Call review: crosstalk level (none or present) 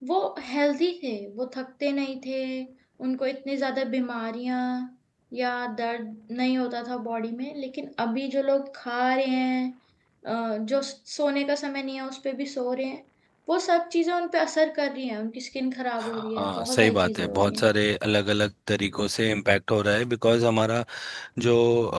present